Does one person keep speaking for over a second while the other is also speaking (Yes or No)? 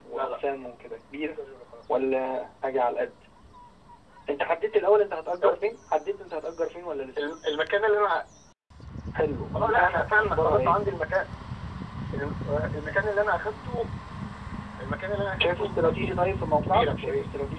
Yes